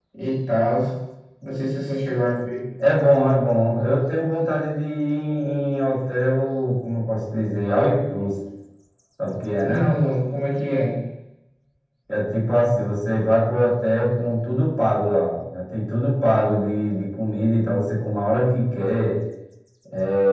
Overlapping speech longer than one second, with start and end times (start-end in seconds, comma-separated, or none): none